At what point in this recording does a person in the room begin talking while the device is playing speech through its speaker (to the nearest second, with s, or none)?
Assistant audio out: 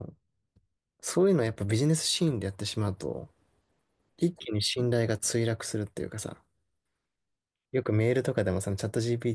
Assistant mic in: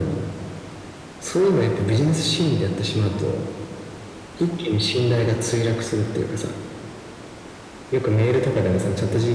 none